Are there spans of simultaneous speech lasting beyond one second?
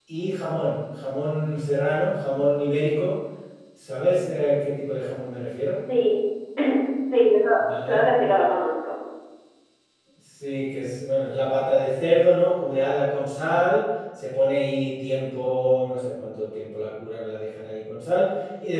No

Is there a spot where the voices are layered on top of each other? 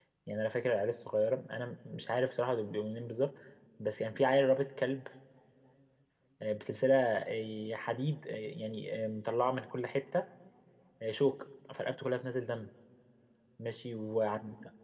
No

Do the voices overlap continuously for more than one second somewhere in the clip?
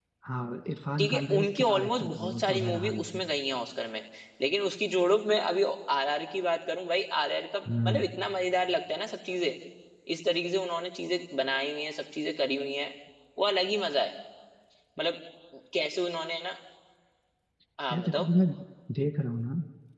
Yes, from 1.0 s

